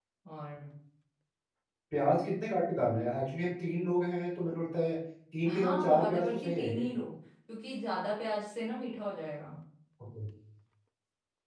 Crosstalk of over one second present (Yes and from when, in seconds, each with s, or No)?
Yes, from 5.5 s